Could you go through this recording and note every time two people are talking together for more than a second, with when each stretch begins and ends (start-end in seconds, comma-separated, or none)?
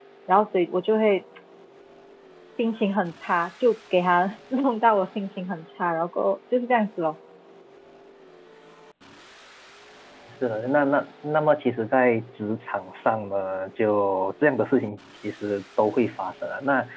none